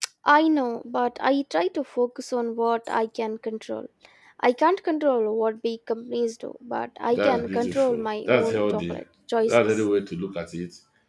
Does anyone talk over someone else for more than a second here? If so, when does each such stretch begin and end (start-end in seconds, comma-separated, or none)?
7.1-9.0